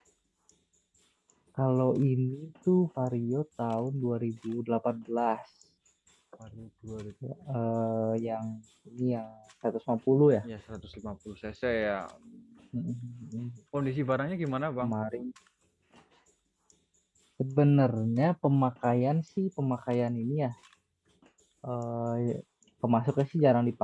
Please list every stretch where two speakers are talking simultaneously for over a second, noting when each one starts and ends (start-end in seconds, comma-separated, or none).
none